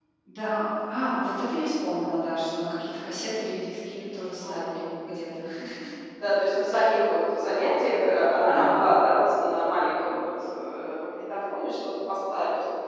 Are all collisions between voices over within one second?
Yes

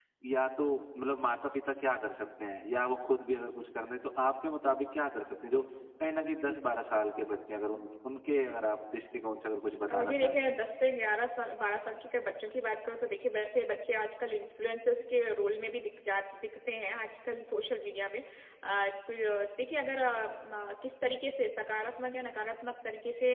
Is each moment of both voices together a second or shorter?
Yes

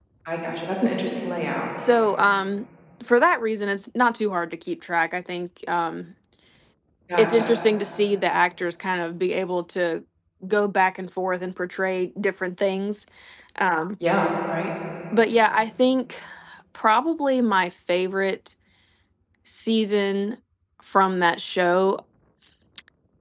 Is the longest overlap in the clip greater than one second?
No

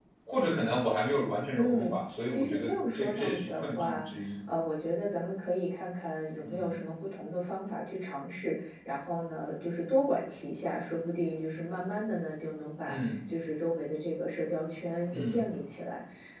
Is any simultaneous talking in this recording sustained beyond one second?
Yes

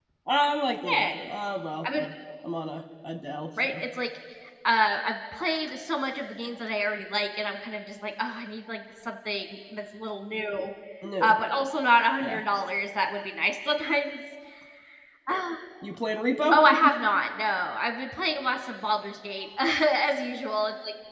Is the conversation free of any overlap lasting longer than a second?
Yes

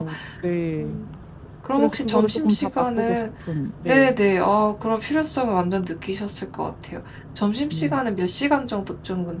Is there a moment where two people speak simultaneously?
Yes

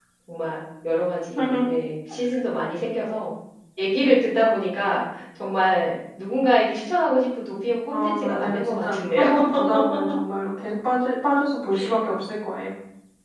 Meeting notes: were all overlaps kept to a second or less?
No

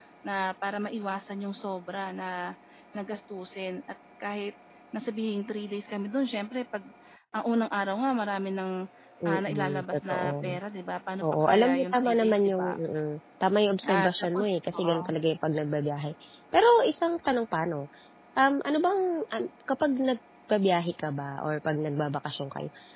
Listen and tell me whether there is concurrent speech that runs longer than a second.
Yes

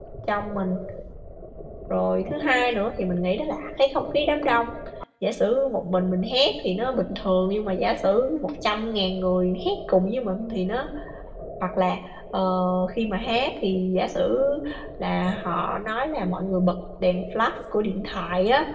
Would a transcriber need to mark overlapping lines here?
No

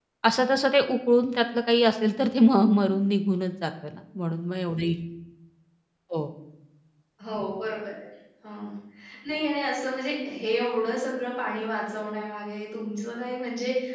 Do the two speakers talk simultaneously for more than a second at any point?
No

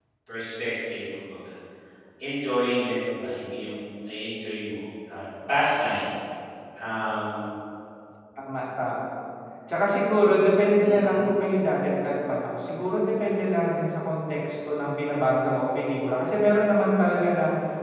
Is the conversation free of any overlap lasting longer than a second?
Yes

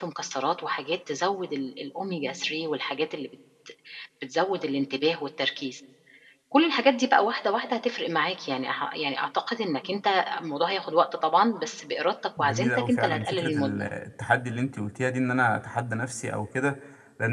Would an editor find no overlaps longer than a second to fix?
No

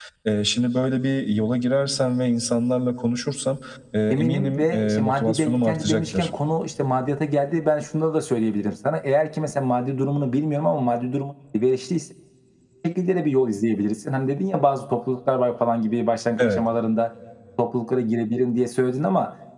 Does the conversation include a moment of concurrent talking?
Yes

